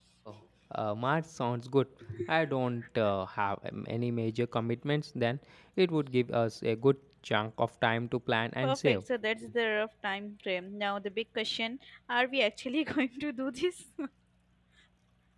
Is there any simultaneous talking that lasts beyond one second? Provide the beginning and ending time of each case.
none

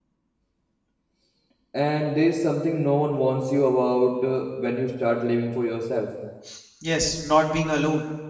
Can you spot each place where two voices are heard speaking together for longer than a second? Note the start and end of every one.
none

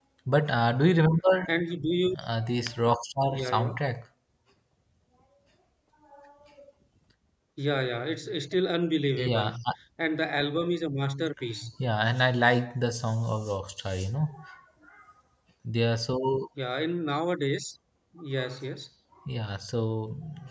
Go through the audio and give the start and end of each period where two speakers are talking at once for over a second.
none

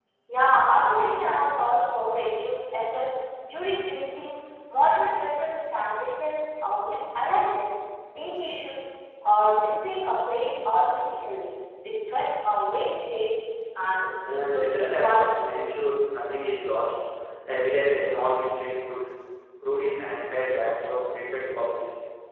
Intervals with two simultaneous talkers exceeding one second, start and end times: 14.3-15.5

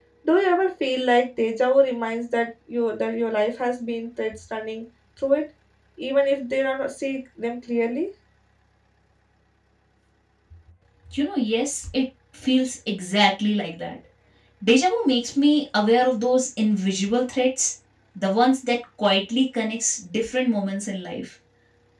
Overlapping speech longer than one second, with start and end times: none

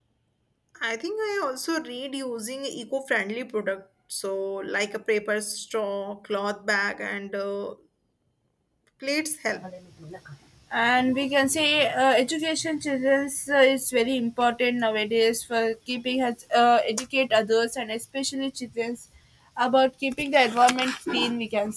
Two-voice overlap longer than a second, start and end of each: none

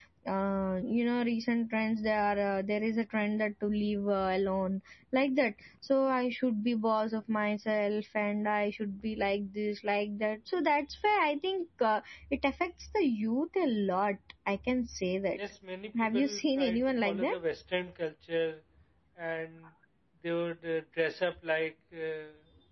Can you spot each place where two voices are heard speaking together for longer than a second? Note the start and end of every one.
16.1-17.3

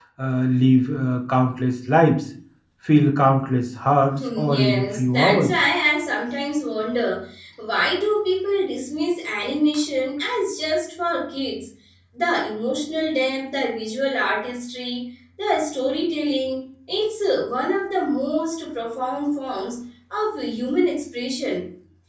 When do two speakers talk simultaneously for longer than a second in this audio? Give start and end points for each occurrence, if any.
4.1-5.5

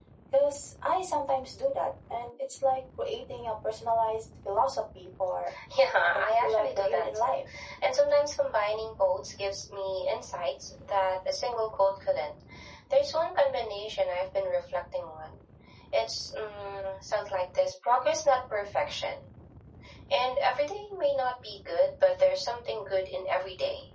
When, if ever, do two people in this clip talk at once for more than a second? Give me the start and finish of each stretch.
6.1-7.4

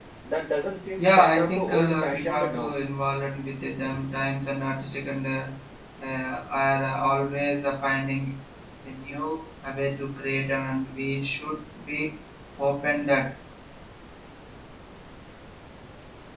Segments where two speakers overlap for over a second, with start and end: 1.0-2.8

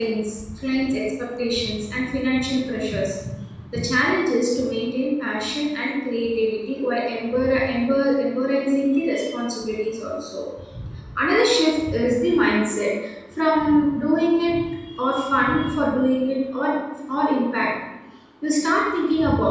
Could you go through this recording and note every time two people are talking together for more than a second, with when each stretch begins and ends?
none

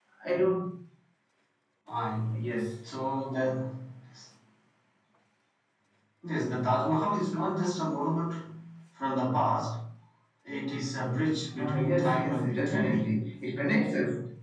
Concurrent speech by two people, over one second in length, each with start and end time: 11.6-13.2

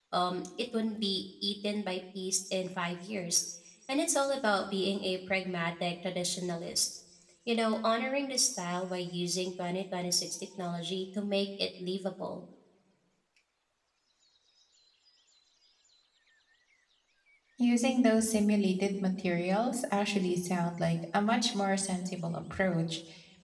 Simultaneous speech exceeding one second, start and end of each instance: none

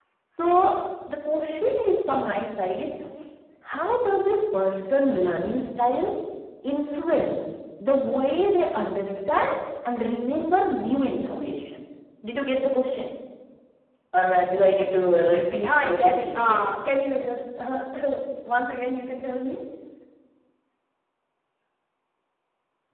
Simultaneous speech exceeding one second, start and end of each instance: 15.5-16.7

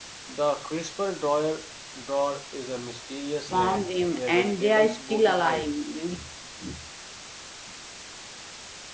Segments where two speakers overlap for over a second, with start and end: 3.5-5.8

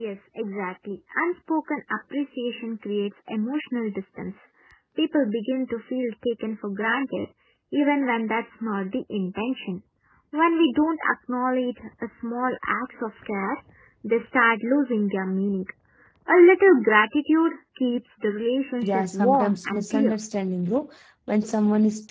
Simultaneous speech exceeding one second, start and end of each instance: 18.8-20.1

